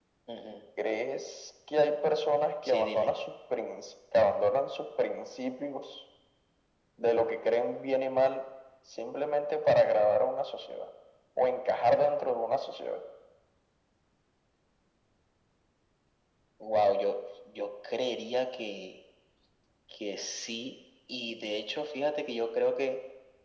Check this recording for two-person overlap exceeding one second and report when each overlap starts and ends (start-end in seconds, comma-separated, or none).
none